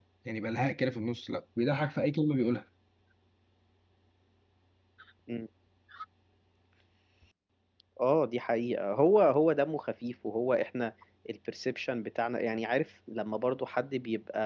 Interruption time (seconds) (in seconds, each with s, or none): none